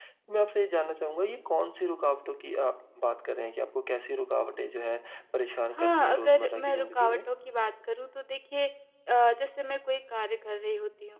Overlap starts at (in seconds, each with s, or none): 5.7 s